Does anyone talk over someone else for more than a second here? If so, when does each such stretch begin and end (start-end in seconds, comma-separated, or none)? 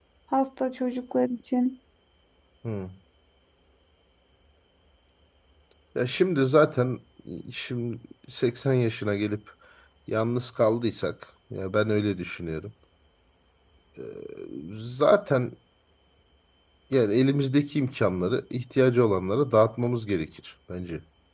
none